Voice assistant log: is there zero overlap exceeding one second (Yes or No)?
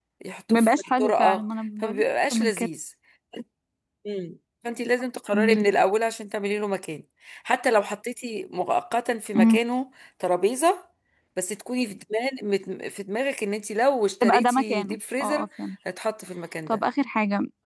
No